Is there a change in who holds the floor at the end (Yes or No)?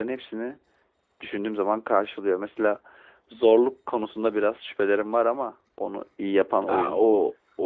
Yes